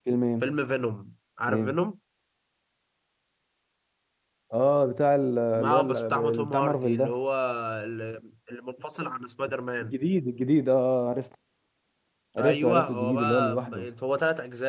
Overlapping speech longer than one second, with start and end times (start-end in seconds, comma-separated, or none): 5.6-7.1, 12.4-13.7